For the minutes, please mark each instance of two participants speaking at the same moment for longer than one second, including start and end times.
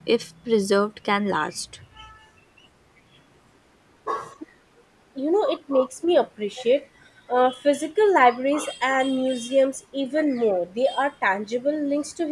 none

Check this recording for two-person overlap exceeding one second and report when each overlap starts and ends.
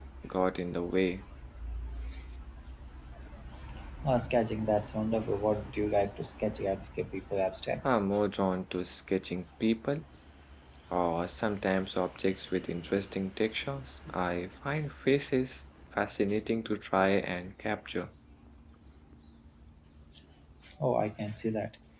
none

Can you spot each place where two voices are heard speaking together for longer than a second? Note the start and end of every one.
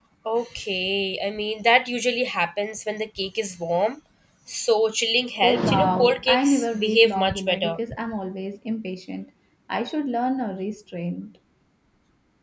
5.4-7.7

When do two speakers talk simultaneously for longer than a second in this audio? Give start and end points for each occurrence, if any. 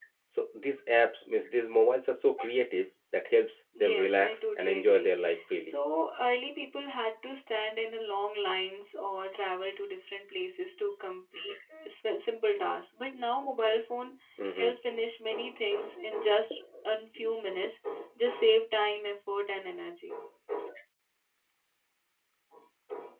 3.8-5.1

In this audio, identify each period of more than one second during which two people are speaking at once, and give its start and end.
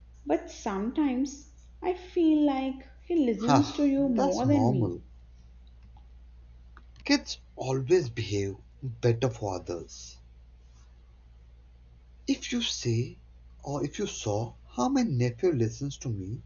3.4-4.9

